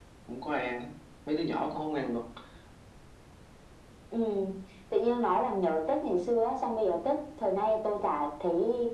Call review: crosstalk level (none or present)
none